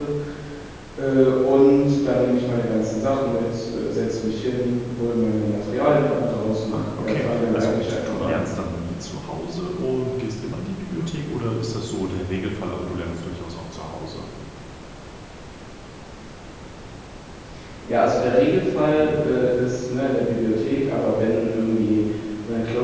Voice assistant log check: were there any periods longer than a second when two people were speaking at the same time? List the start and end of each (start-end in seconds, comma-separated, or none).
6.7-8.4